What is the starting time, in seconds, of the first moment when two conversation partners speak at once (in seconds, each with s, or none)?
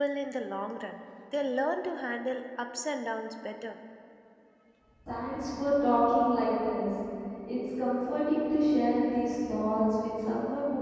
none